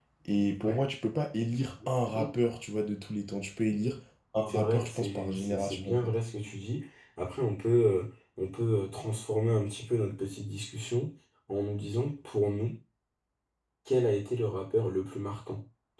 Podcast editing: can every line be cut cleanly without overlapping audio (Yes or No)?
No